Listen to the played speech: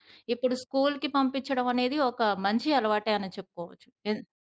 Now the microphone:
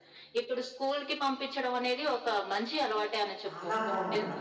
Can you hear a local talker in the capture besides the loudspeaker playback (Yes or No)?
Yes